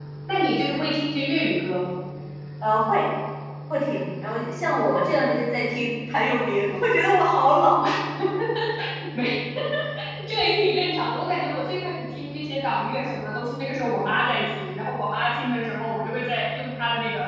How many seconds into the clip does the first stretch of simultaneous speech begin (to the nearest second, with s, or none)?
none